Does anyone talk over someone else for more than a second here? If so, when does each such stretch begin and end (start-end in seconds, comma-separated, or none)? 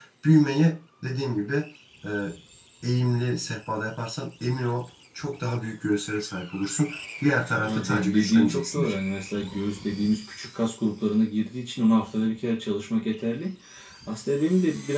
7.6-8.9